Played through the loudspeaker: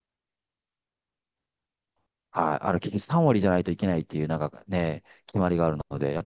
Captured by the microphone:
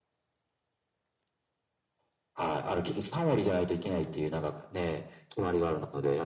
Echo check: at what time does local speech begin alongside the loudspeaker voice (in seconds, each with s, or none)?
none